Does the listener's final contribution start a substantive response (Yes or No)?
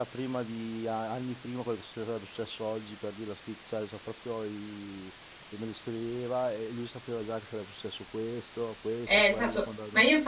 Yes